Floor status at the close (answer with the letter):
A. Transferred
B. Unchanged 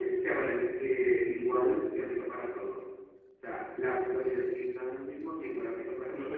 A